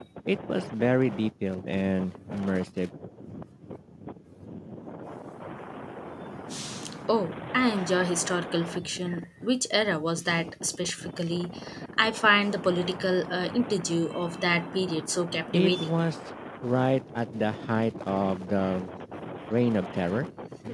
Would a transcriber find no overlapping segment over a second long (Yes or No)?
Yes